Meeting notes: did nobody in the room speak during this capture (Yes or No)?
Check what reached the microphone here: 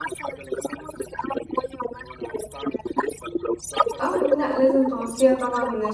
No